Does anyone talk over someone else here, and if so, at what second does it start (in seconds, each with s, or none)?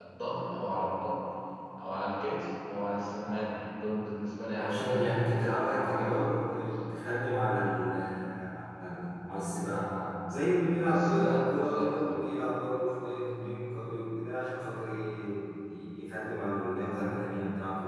4.5 s